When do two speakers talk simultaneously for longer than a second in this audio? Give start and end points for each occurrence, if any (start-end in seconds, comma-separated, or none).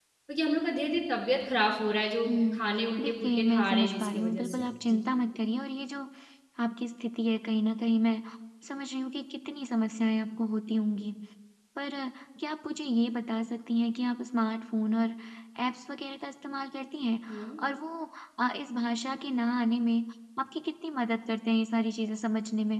3.0-5.0